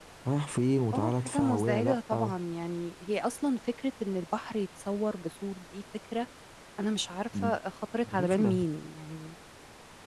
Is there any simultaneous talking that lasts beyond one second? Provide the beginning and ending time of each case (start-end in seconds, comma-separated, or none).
0.9-2.3